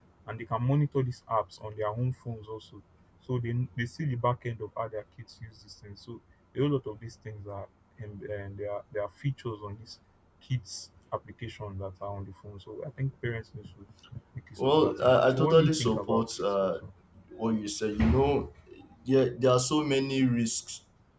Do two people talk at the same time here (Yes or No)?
Yes